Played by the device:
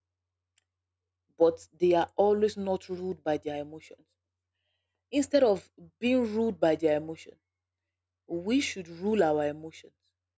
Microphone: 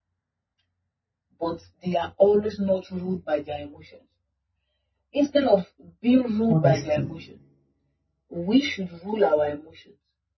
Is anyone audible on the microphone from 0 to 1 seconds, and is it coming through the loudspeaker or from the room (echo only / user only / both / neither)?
neither